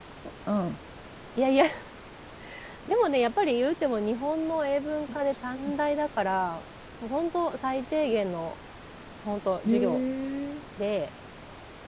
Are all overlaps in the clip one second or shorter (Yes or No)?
Yes